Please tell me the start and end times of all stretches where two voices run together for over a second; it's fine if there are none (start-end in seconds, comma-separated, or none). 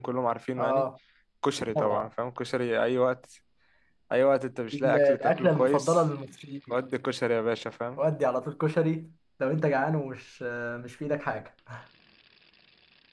4.7-6.0